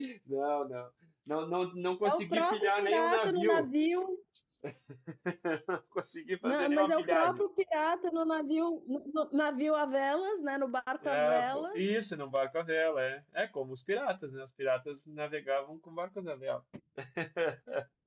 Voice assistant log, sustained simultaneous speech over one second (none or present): present